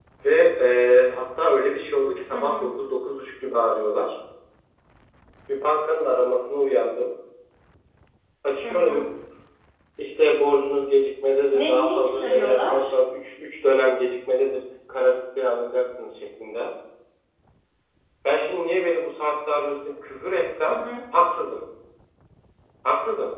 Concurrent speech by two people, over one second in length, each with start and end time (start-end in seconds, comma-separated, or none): 11.5-12.8